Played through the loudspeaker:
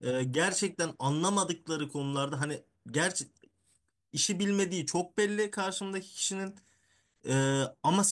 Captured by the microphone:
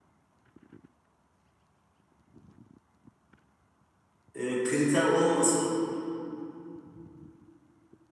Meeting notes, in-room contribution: present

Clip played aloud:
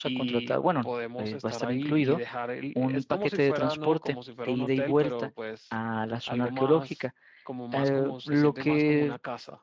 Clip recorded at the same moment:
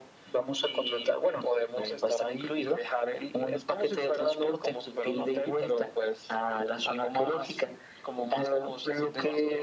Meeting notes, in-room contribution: none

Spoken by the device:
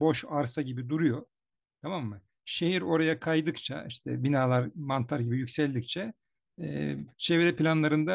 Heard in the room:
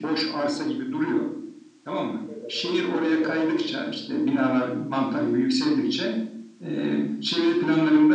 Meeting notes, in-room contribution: present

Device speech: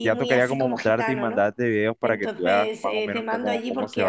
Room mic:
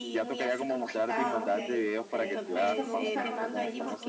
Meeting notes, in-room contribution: present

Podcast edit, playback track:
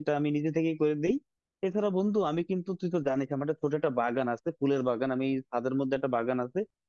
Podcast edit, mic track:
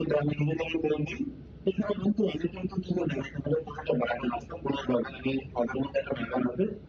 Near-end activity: none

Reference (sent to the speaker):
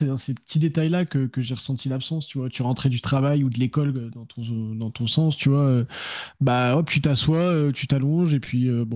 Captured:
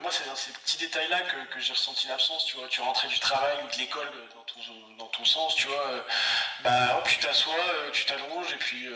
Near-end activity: none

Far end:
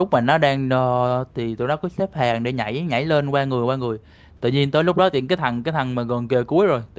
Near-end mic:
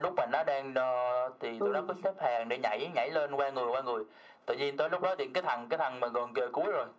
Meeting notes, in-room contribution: present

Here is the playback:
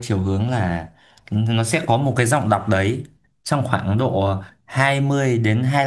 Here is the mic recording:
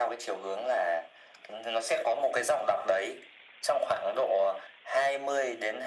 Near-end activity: none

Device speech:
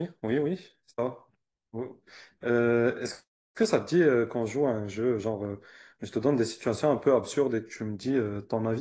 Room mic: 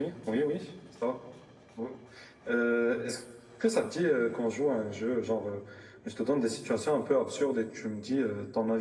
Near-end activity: none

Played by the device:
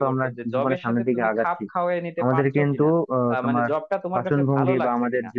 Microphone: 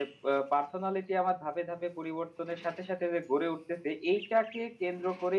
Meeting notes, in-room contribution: present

